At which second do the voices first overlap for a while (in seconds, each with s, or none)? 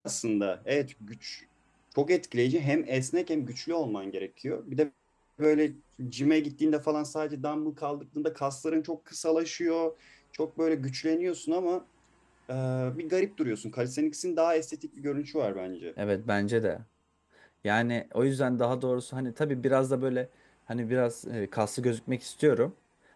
none